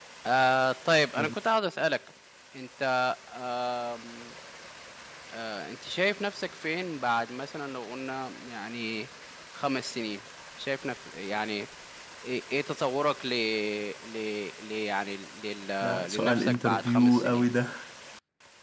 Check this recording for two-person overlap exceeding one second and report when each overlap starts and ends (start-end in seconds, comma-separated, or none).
16.1-17.4